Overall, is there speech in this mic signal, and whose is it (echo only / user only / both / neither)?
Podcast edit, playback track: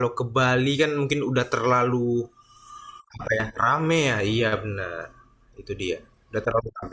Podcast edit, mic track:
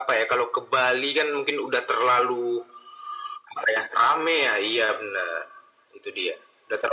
echo only